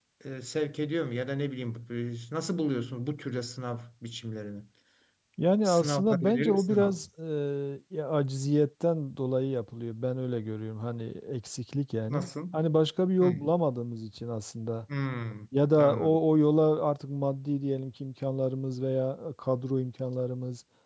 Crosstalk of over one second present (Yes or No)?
Yes